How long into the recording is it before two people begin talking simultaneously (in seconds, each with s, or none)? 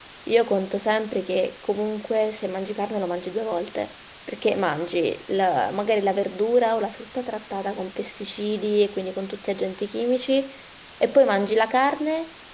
none